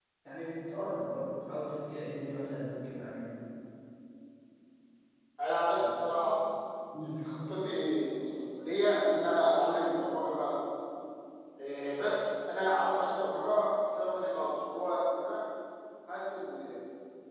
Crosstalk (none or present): none